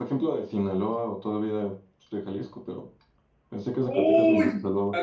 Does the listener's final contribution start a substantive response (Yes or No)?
Yes